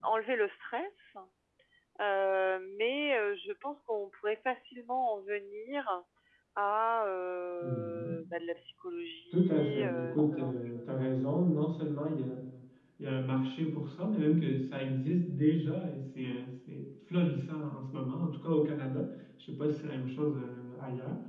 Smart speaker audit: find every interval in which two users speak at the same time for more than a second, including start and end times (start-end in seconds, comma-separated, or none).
9.3-11.1